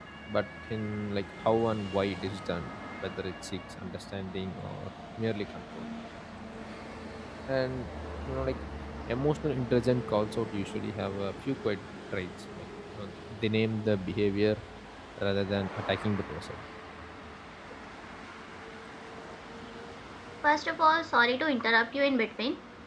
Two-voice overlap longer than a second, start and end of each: none

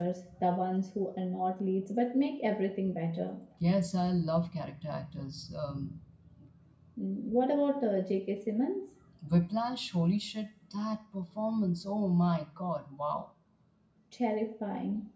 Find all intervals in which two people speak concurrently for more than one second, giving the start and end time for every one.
none

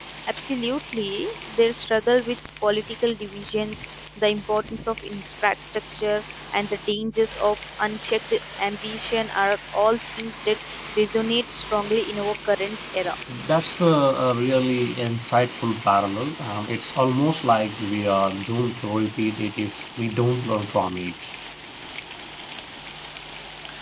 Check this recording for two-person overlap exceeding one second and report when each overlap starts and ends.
none

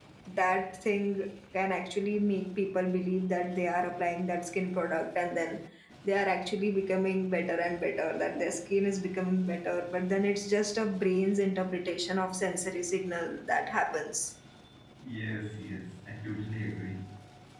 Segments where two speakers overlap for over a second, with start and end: none

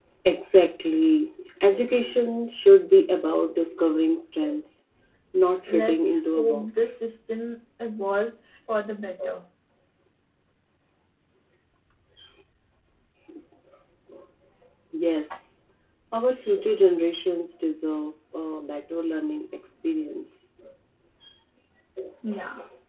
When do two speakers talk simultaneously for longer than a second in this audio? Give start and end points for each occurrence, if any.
5.7-6.9

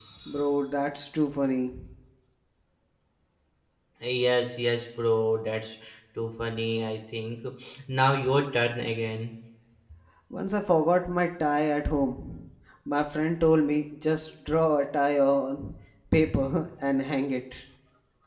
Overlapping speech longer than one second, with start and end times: none

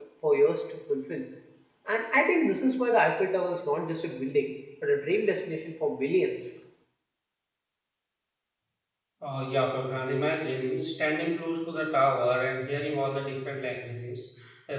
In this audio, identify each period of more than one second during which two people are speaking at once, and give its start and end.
none

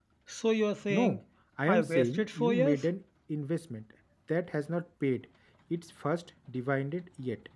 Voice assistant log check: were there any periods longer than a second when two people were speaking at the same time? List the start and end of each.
1.7-2.9

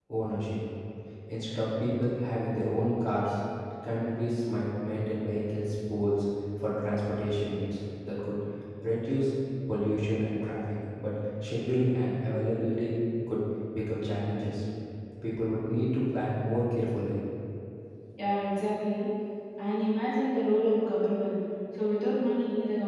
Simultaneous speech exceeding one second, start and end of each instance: none

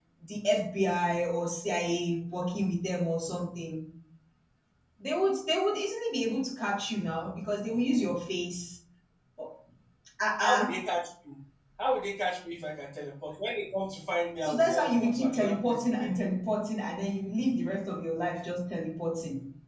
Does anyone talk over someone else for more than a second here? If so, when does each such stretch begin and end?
14.4-16.2

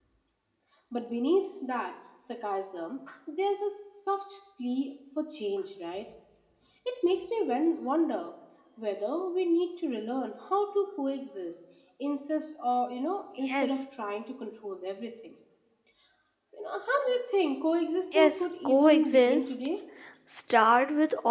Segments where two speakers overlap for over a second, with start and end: 18.1-19.8

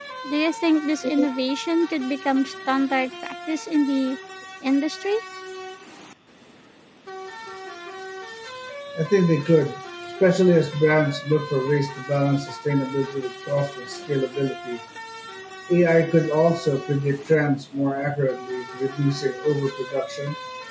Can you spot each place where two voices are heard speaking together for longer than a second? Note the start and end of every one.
none

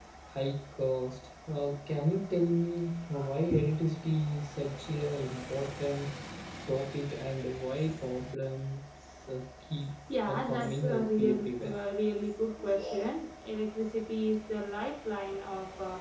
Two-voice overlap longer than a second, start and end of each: 10.2-11.7

